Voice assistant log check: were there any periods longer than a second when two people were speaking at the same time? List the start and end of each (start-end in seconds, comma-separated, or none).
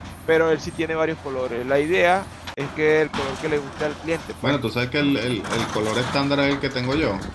none